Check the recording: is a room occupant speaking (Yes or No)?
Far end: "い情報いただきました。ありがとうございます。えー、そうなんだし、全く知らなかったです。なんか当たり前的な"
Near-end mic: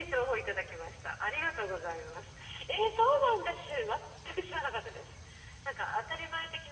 No